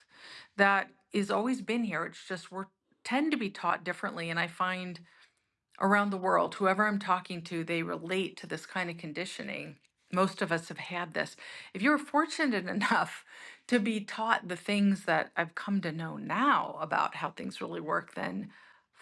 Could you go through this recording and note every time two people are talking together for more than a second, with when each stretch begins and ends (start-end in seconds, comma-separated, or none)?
none